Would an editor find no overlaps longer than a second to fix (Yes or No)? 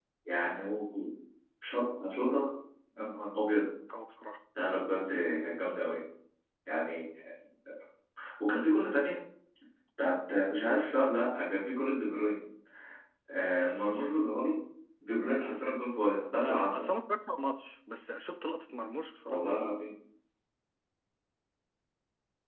Yes